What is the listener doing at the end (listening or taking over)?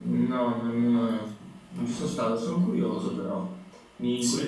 listening